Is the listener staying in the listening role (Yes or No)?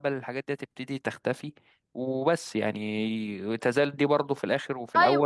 No